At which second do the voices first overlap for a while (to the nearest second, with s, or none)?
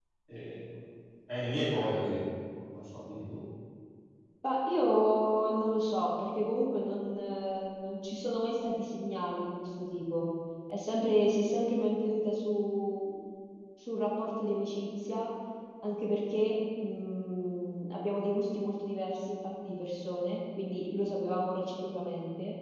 none